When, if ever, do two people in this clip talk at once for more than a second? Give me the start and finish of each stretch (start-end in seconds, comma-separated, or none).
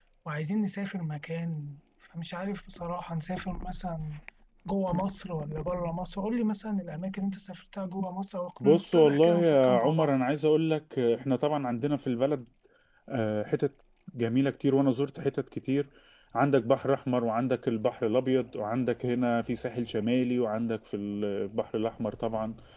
8.6-10.1